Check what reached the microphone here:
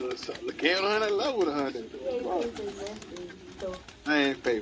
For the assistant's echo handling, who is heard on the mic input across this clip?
both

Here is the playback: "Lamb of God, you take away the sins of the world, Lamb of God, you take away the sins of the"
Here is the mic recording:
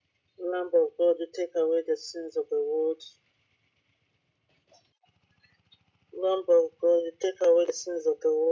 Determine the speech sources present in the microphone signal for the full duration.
echo only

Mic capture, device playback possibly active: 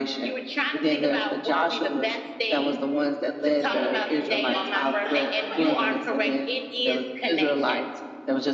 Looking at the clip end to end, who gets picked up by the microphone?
both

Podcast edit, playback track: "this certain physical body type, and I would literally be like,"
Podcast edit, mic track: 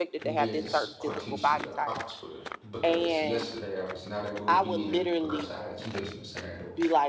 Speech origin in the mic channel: both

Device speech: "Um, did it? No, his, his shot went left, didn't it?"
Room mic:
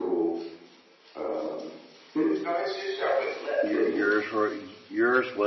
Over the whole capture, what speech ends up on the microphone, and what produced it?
both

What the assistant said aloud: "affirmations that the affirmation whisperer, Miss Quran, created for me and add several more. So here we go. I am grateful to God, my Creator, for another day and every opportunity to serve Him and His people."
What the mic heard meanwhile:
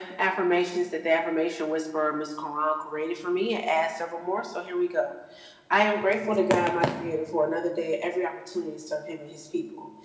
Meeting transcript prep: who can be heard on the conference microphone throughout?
echo only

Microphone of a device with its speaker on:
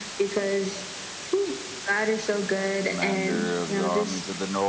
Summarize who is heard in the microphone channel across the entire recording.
both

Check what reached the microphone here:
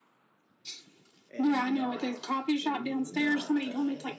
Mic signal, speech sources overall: both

